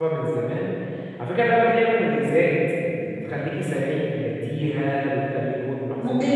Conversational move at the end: taking over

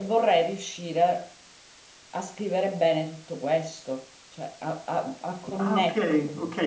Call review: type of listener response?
taking over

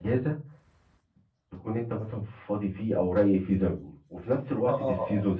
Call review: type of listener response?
listening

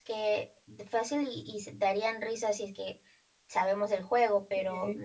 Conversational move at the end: listening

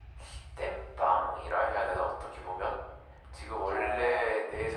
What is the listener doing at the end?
listening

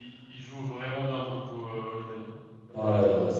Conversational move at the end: taking over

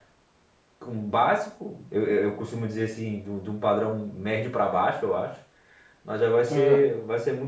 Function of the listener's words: listening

